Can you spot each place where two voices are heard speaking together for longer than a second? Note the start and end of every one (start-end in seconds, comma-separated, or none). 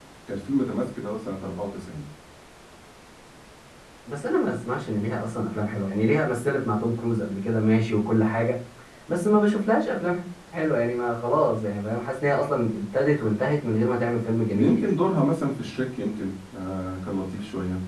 none